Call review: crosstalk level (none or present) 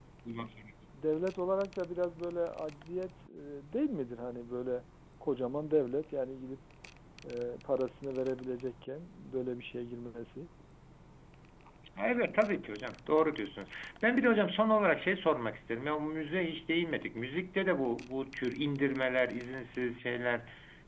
none